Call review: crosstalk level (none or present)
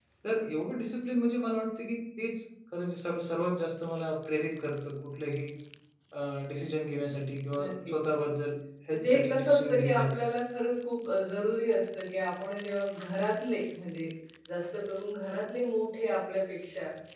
present